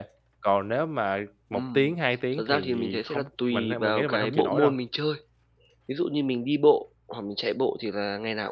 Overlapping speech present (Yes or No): Yes